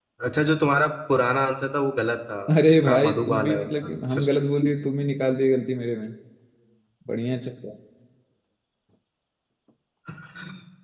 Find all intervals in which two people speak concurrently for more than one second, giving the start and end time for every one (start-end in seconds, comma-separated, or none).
2.5-4.3